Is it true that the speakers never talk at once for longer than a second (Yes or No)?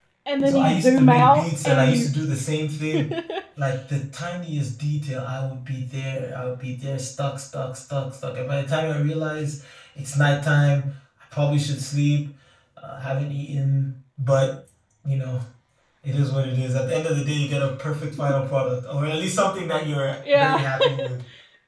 No